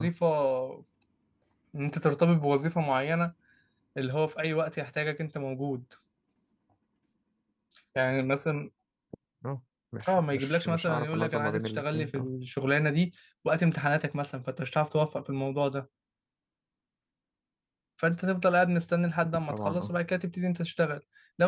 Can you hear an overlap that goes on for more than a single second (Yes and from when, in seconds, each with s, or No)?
Yes, from 10.1 s